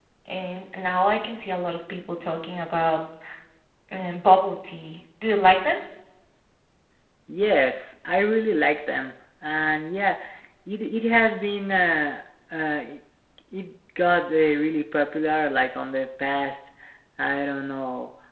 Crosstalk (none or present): none